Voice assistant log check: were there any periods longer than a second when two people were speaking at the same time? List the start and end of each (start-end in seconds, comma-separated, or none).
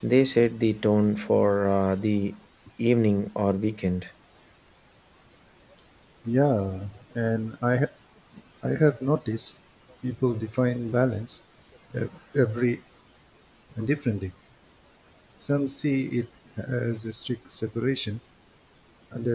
none